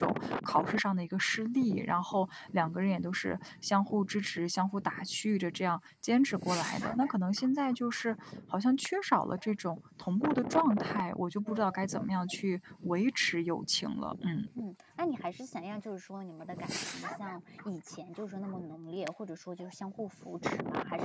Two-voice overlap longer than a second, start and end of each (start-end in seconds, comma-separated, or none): none